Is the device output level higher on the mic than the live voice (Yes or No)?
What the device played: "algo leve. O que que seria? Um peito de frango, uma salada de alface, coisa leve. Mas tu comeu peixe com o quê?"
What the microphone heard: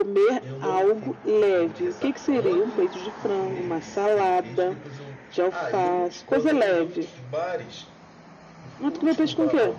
Yes